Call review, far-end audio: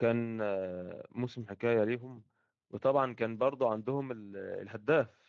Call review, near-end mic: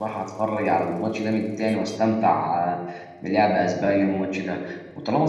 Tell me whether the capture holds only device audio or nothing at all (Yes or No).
No